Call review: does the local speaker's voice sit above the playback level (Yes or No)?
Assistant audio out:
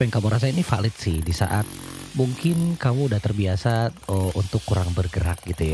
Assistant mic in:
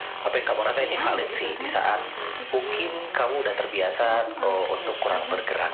No